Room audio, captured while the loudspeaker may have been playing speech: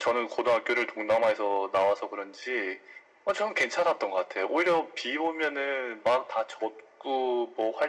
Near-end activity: none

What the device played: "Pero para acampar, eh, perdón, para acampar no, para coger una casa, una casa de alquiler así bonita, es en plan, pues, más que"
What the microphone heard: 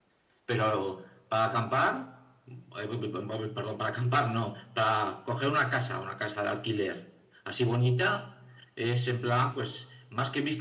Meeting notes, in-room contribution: none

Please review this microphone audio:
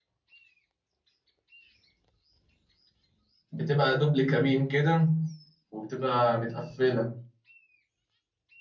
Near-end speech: present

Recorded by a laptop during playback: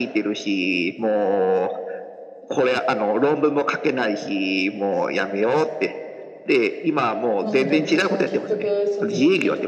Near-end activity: present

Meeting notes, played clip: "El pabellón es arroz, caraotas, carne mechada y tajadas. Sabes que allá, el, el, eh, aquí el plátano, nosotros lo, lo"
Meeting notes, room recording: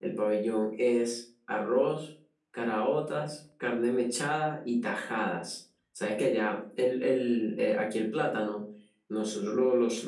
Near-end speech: none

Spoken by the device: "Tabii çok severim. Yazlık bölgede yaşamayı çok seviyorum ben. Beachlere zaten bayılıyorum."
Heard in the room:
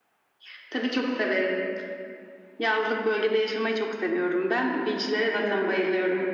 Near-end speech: none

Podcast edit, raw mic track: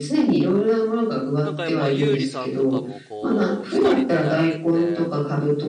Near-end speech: present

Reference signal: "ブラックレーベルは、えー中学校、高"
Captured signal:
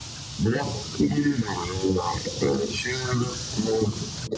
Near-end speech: none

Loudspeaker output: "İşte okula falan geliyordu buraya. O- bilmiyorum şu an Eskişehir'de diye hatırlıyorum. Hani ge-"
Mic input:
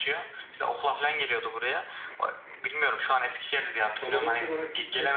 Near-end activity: present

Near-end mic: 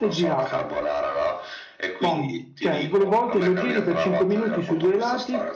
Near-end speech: present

